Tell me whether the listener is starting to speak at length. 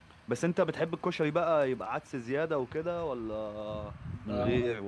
Yes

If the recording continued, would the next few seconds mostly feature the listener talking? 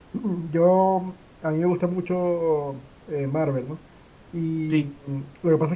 No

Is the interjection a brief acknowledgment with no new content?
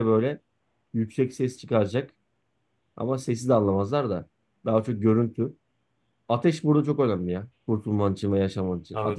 No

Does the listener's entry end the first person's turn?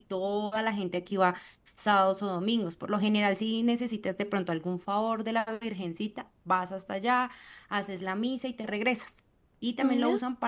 No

